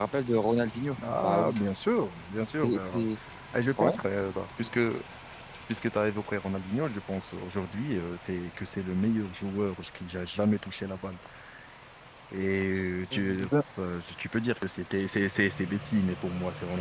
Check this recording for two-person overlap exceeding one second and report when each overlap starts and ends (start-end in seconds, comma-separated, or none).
none